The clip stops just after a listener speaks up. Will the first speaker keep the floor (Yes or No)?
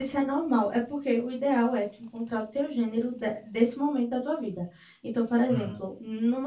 Yes